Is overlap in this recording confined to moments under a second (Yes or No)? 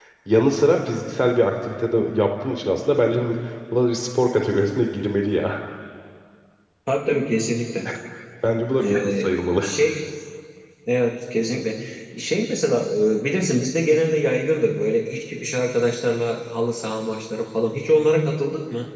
Yes